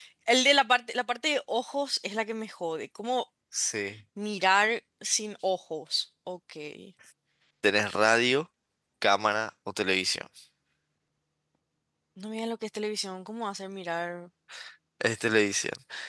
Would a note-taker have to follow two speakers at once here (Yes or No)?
No